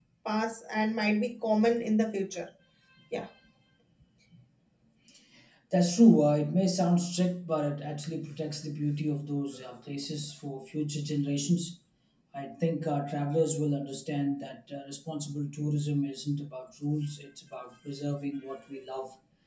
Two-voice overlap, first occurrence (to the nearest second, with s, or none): none